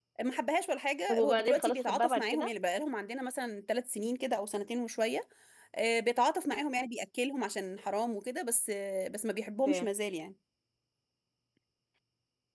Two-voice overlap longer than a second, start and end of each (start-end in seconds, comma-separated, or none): 1.1-2.5